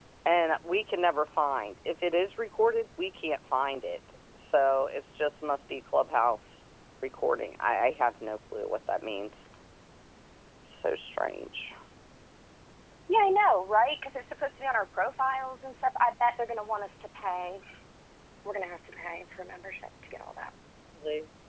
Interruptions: none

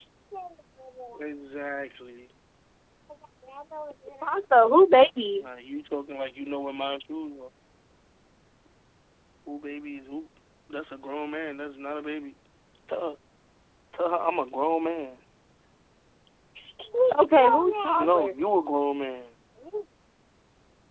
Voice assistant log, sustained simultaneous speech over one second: present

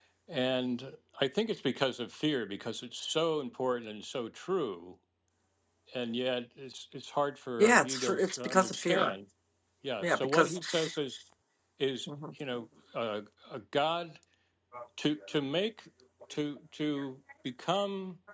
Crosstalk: present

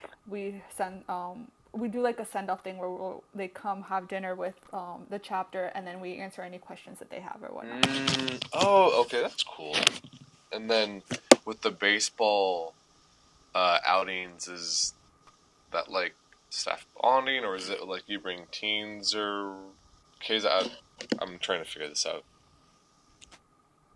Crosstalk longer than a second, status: none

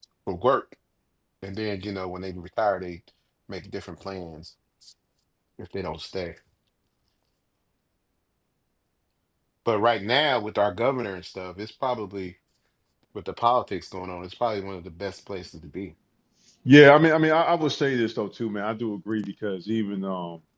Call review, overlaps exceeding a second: none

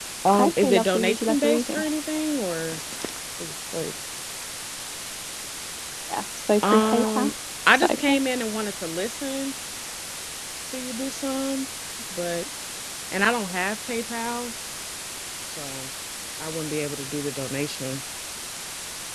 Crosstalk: present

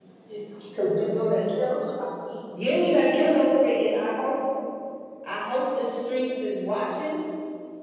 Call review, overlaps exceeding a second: none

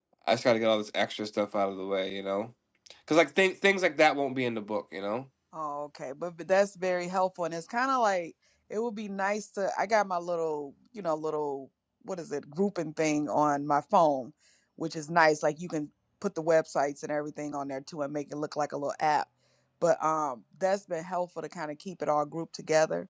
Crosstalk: none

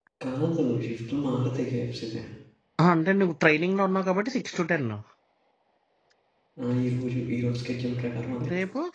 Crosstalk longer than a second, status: none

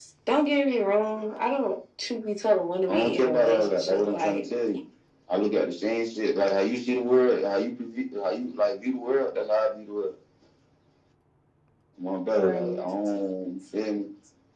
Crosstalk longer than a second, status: present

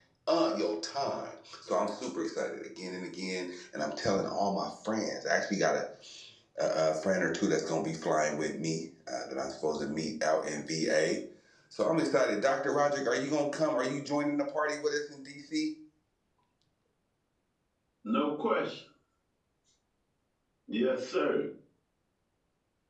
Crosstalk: none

